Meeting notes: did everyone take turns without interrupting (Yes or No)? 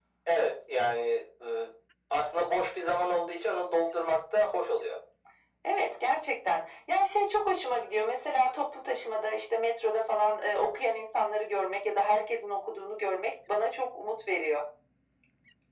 Yes